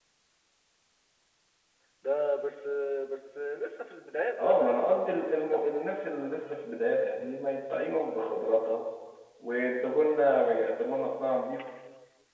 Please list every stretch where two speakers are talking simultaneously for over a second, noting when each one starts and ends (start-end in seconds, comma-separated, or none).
4.4-5.7